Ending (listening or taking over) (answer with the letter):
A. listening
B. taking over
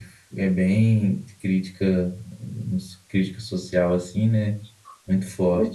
B